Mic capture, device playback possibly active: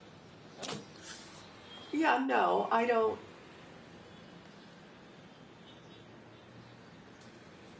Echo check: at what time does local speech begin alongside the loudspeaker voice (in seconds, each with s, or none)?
1.9 s